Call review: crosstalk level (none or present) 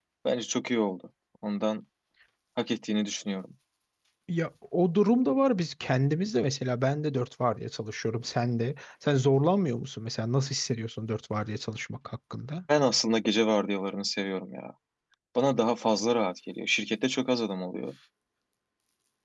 none